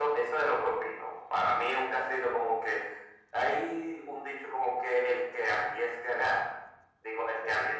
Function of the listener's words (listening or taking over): listening